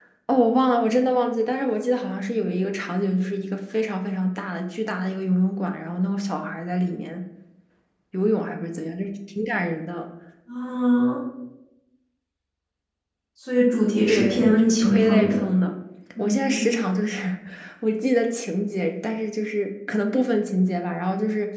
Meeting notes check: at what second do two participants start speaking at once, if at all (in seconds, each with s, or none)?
14.1 s